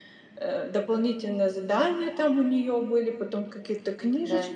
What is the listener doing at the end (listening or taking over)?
listening